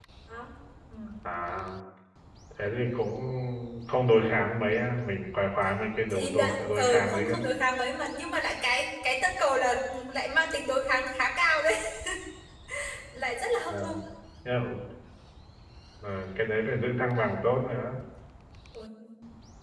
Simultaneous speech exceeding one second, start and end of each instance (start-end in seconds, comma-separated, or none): 6.1-7.4